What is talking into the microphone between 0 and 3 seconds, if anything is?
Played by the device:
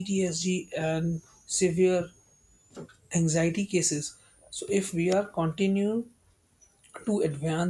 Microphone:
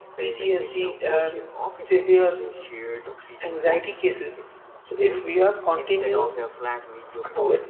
both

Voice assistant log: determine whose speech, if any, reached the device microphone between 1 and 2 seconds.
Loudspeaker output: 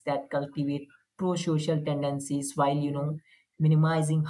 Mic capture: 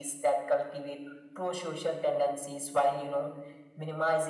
echo only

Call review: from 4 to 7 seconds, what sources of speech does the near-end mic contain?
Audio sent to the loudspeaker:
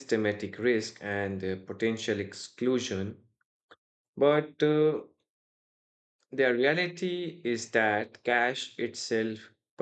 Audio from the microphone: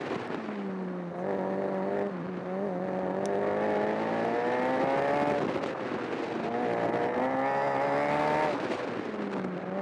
neither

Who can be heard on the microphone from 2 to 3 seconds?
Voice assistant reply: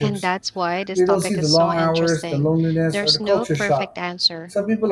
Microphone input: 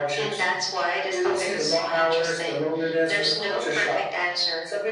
echo only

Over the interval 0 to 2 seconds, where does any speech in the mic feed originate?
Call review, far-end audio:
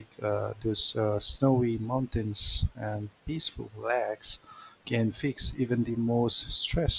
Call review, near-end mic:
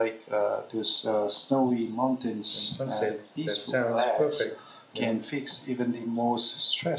echo only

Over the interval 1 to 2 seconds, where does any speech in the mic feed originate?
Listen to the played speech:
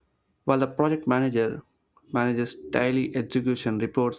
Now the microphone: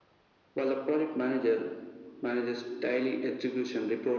echo only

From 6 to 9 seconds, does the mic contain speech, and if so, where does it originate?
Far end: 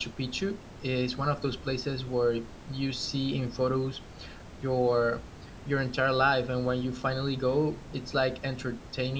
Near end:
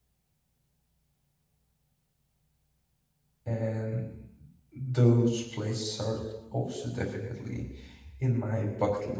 user only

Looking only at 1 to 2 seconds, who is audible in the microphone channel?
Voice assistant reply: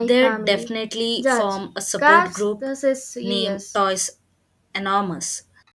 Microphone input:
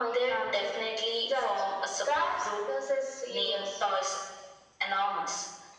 echo only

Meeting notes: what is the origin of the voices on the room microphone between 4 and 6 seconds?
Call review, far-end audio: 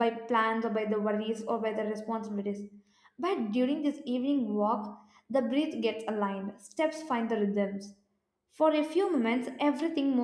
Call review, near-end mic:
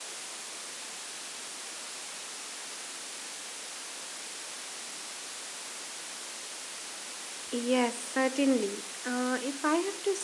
neither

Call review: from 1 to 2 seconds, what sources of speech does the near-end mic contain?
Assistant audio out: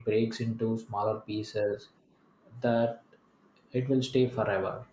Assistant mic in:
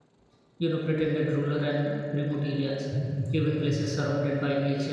user only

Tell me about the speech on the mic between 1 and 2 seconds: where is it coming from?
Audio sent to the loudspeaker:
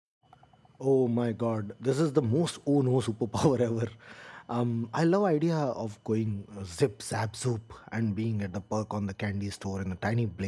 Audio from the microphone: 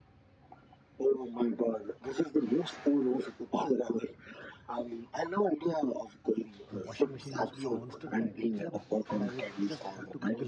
echo only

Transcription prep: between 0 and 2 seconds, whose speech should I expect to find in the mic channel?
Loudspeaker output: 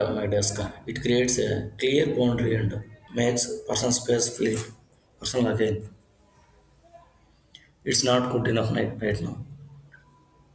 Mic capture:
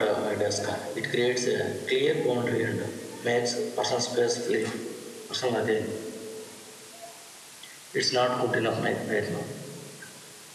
echo only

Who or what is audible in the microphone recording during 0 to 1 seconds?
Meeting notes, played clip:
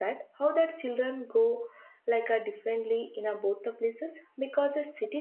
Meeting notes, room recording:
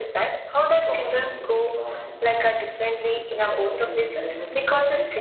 both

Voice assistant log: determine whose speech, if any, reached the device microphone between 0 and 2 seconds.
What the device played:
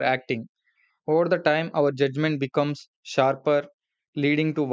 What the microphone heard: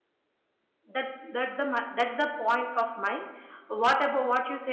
user only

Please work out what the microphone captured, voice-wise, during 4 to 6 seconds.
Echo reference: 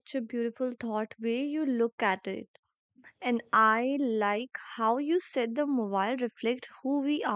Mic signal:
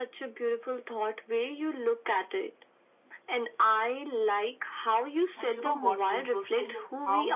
both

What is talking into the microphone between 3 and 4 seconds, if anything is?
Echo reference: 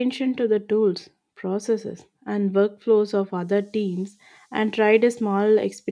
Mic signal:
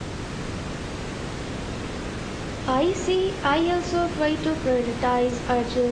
user only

